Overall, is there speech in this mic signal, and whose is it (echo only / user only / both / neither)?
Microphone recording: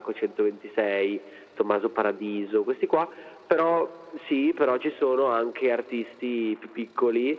echo only